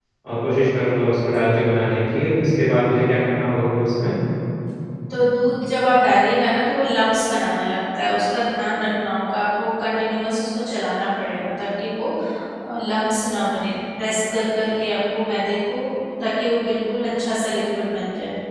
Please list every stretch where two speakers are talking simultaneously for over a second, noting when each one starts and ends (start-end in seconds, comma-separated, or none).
none